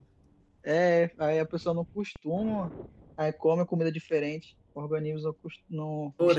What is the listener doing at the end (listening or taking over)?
taking over